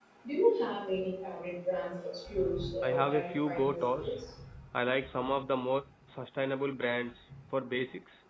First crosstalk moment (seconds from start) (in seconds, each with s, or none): 2.8 s